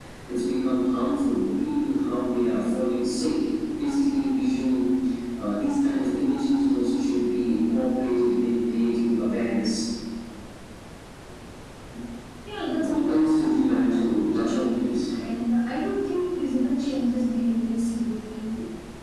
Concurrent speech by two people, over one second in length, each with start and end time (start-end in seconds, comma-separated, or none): 12.8-14.6